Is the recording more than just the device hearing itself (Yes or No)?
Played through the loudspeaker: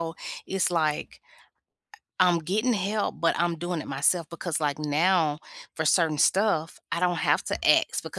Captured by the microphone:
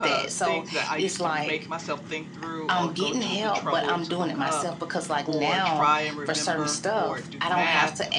Yes